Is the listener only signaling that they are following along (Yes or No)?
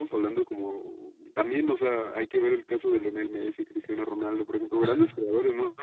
Yes